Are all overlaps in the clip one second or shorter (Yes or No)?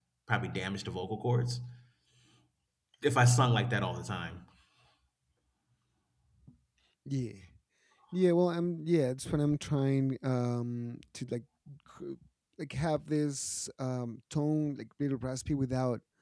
Yes